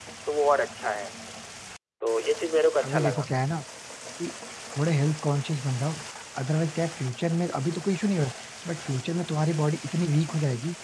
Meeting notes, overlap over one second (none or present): none